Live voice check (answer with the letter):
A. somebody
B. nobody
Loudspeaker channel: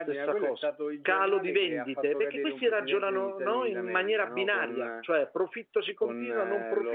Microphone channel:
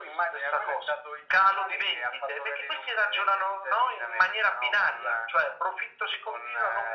B